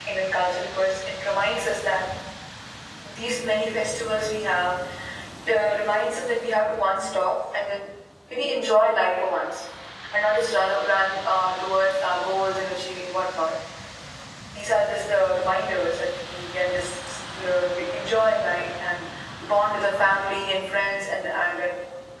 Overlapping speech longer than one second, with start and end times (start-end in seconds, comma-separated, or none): none